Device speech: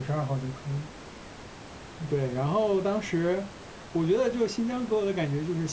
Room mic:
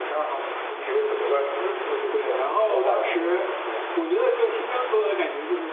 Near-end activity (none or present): present